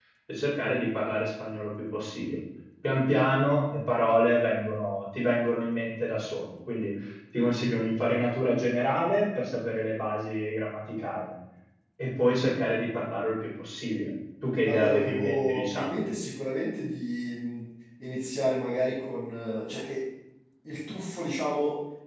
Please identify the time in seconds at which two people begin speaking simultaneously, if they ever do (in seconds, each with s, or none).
14.7 s